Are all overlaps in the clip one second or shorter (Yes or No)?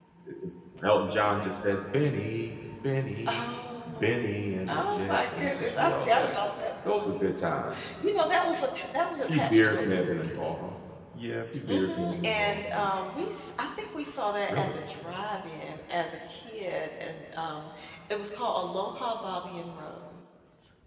No